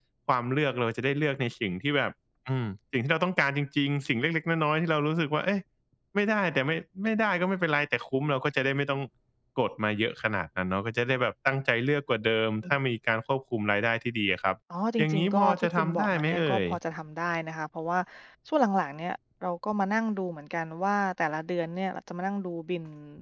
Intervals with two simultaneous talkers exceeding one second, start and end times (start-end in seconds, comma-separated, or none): 15.0-16.6